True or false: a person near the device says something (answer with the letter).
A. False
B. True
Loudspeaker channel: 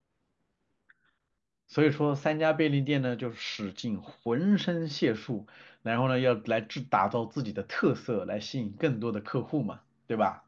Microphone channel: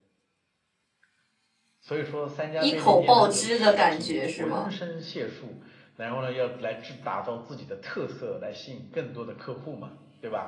B